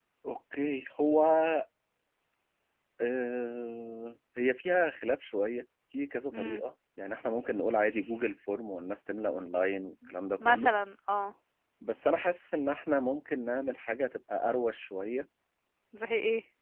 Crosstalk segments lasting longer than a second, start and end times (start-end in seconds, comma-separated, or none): none